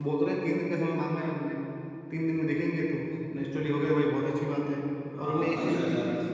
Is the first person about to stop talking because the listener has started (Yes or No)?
Yes